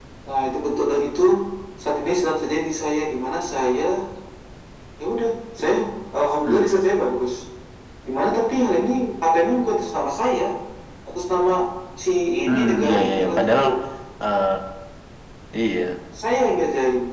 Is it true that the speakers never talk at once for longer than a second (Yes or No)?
No